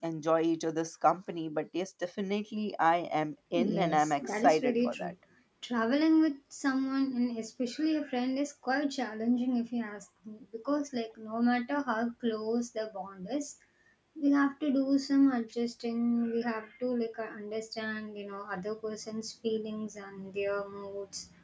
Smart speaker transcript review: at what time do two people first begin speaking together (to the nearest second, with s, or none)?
4 s